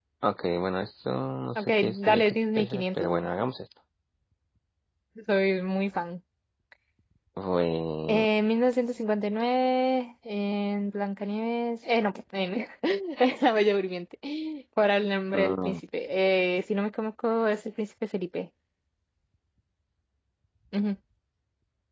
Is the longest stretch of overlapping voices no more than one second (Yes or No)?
No